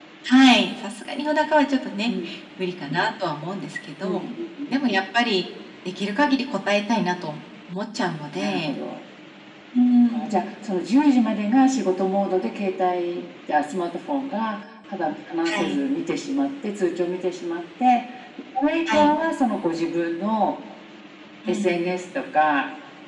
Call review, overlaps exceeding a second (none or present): none